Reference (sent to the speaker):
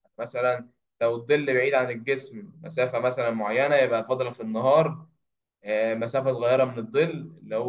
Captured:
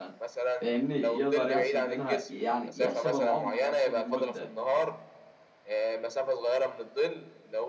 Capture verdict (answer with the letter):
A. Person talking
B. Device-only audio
A